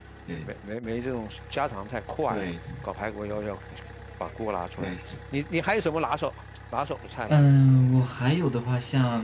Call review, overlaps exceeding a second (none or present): none